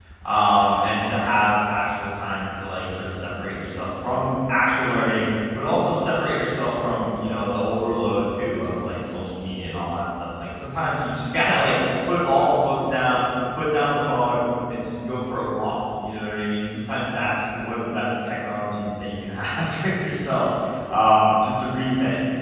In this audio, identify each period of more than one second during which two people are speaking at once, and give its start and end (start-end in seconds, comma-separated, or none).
none